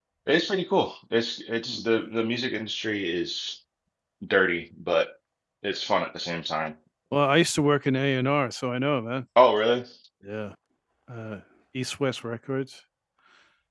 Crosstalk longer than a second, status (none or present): none